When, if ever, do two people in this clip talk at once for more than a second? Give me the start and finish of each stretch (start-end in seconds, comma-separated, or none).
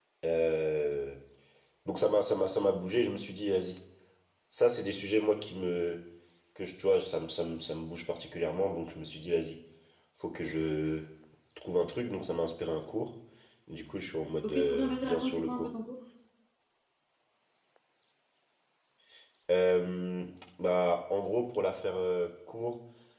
14.4-15.7